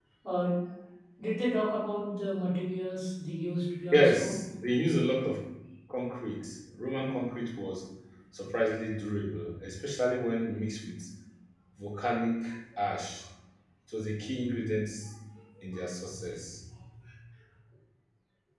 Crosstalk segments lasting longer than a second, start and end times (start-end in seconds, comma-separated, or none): none